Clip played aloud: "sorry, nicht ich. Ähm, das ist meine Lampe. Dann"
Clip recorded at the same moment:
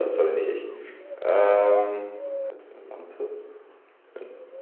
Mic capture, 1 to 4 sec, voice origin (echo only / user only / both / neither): echo only